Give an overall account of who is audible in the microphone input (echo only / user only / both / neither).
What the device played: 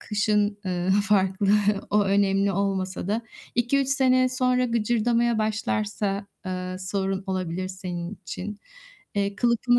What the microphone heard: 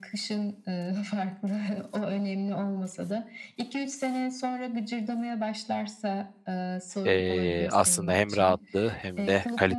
both